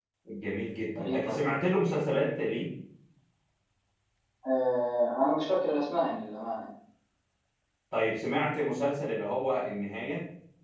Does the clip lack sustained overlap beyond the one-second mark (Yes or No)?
Yes